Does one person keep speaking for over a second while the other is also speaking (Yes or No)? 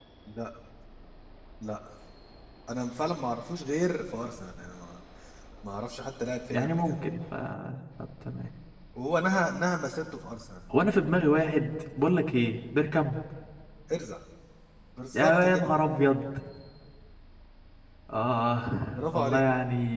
No